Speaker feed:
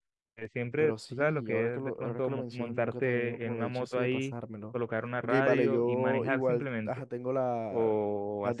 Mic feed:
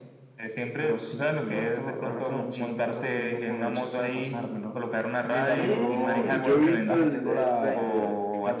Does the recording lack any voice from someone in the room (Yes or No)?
No